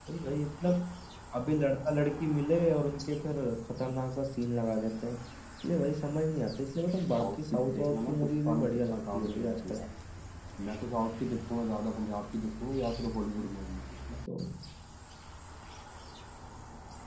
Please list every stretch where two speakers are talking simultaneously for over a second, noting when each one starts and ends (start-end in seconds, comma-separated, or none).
7.0-9.8